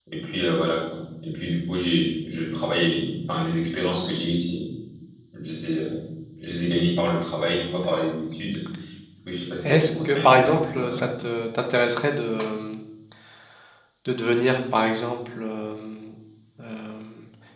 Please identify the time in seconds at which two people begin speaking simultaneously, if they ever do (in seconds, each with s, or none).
9.7 s